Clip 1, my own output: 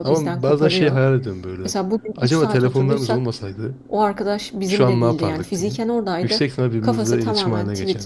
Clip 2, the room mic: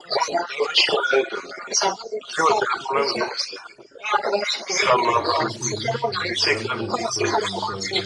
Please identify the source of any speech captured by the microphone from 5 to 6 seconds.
both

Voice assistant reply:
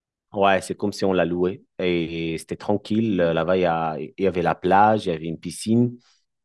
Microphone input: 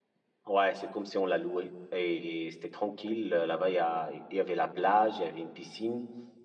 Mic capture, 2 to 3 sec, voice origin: echo only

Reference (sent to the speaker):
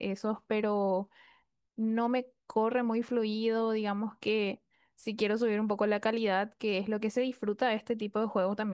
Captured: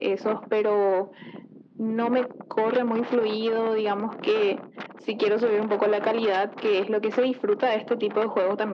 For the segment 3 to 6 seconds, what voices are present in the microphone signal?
echo only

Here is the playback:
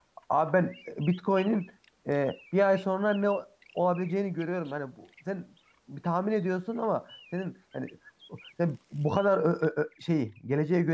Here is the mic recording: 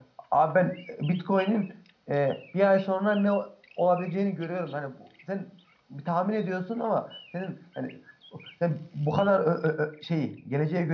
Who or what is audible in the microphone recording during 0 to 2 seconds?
echo only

